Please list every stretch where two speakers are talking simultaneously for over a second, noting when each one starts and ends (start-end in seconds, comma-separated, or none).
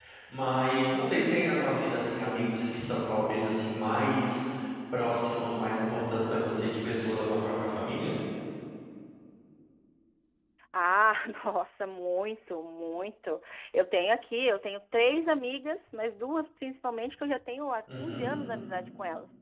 none